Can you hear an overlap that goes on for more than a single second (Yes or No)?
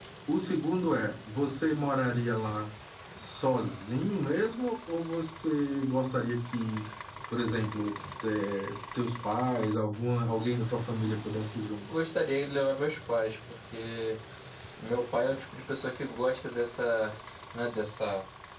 No